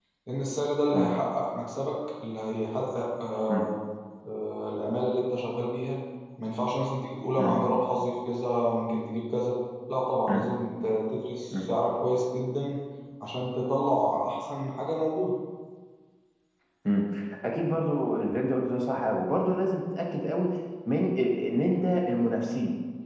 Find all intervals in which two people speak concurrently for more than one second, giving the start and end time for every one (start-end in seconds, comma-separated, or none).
none